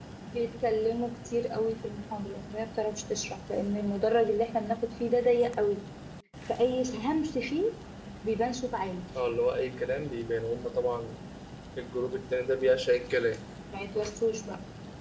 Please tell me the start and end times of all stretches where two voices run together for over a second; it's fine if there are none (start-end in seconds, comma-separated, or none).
none